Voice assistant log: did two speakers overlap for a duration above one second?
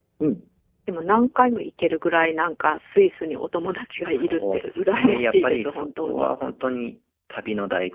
Yes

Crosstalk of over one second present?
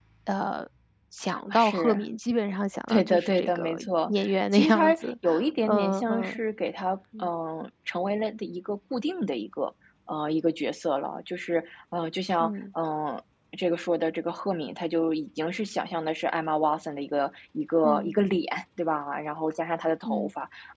Yes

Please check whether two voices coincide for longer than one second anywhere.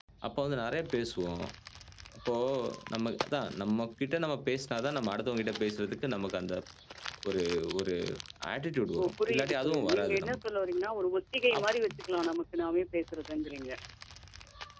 Yes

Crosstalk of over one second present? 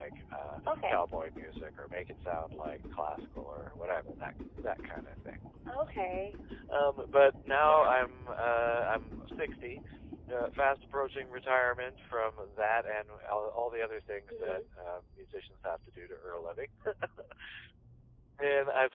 No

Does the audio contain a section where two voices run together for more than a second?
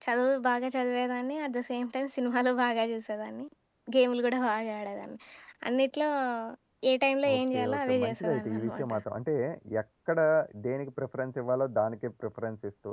Yes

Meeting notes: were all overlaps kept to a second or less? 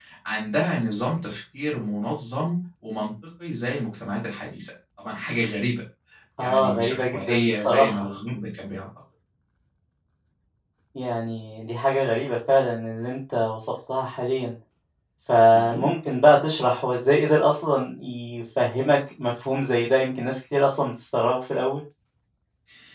No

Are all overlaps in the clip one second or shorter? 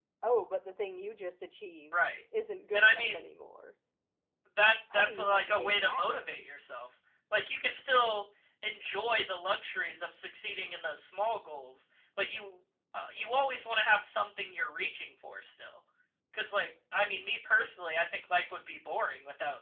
No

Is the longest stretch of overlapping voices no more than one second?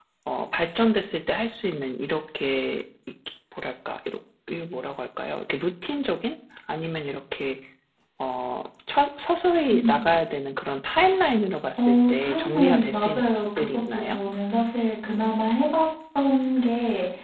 No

